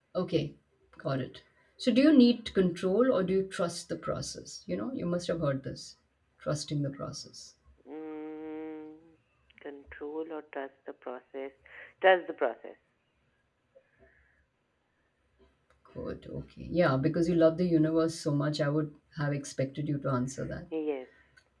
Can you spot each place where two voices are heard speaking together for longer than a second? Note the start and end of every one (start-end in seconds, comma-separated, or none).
none